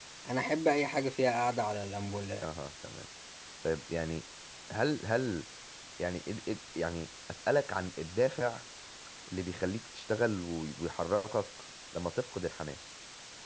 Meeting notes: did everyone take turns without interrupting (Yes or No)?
Yes